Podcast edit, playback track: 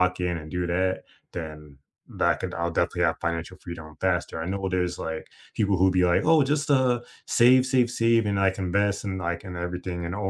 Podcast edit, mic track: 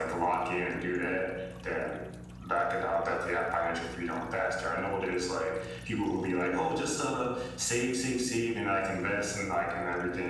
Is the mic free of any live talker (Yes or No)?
Yes